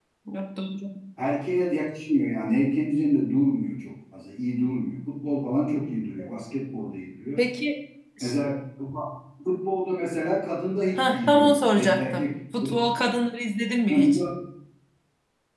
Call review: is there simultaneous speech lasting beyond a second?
Yes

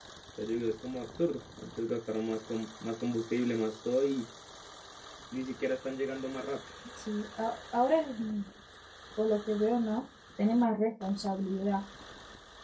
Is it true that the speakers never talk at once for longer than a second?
Yes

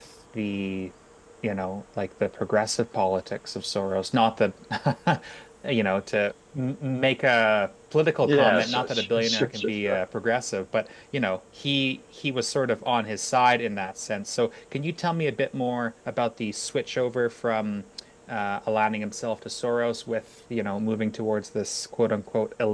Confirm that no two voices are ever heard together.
No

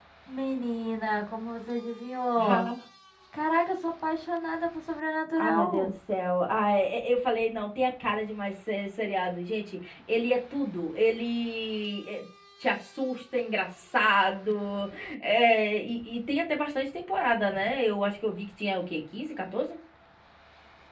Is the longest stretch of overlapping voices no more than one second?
Yes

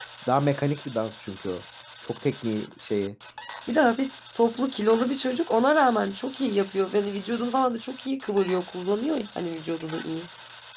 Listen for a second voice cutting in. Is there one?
No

